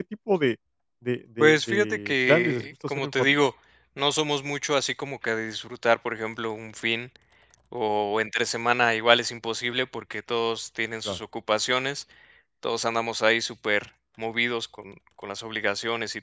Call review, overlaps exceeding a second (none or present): present